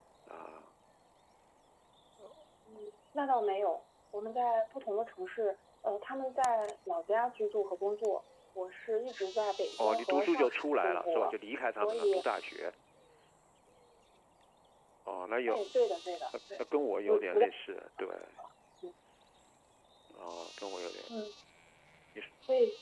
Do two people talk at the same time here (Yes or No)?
Yes